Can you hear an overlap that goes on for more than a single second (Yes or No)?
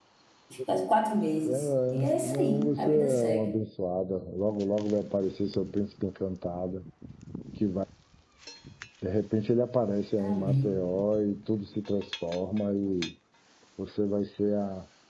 Yes